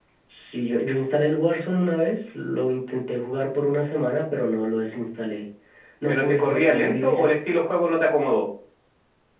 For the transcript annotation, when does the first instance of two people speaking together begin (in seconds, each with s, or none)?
6.1 s